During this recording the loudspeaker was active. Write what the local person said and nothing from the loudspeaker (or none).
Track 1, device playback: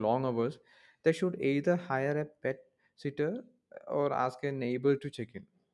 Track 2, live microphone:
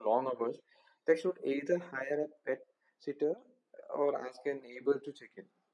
none